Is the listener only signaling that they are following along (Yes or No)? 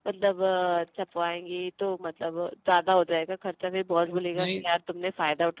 Yes